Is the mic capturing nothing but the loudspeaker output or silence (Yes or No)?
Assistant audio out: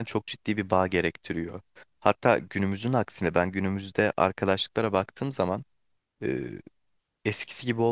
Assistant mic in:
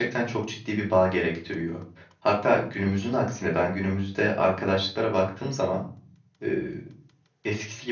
Yes